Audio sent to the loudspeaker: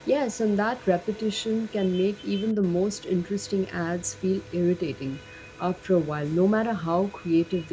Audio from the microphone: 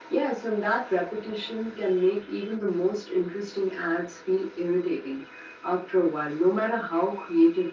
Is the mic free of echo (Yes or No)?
No